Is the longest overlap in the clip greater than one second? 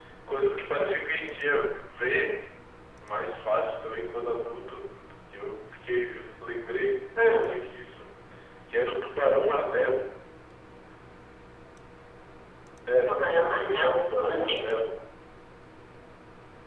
Yes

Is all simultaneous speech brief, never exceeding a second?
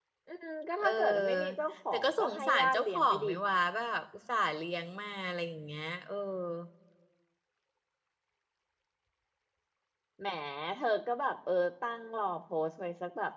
No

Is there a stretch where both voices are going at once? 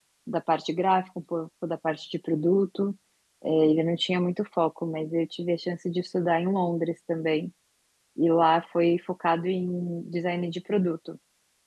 No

